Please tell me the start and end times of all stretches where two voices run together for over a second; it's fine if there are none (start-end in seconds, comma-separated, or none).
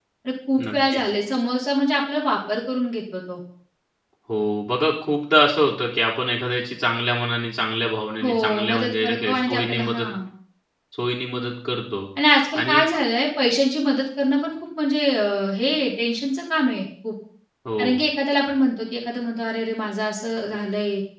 8.2-10.1